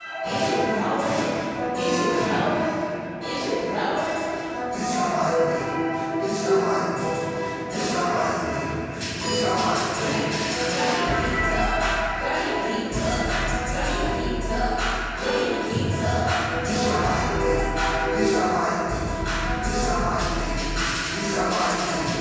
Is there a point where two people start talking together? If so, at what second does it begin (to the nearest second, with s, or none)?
none